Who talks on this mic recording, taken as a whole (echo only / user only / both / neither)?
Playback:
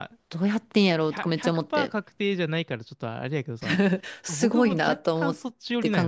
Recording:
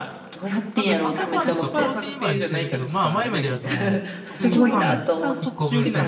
both